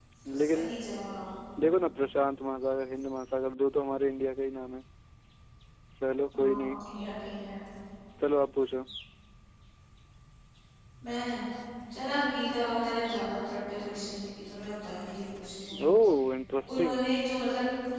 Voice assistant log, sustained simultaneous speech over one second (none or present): none